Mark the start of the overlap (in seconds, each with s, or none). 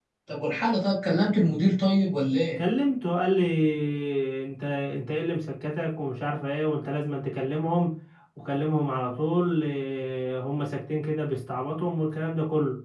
none